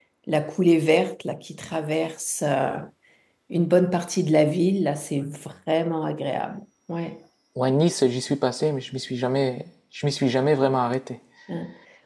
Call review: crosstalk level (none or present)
none